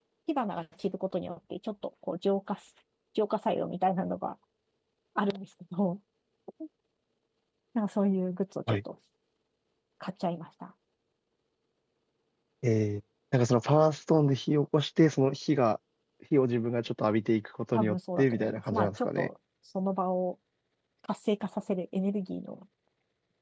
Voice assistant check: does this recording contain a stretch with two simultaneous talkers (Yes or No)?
Yes